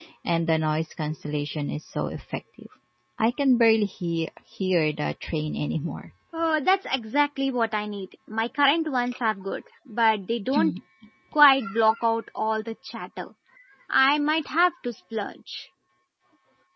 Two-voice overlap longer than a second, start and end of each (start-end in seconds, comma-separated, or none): none